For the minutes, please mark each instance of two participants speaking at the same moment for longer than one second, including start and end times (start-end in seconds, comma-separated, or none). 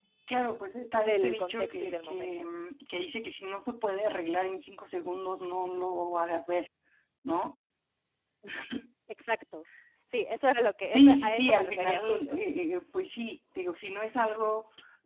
1.0-2.3, 10.9-12.4